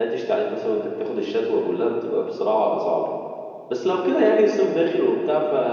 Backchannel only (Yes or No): Yes